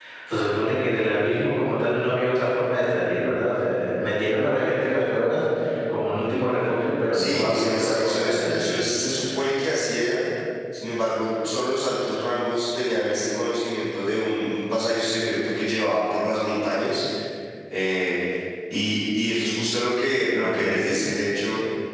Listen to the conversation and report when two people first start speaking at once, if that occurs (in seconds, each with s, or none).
7.1 s